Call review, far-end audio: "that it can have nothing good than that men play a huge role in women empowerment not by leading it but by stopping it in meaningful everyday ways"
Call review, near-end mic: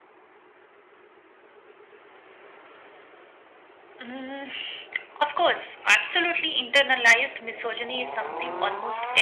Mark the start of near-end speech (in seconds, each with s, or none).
4.0 s